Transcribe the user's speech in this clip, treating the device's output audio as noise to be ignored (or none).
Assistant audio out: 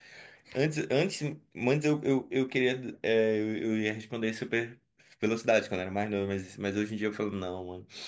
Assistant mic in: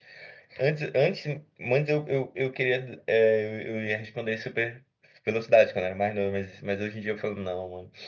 none